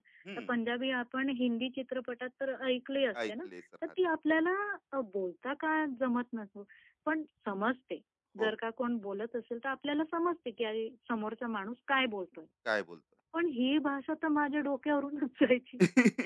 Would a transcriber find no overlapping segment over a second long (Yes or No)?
Yes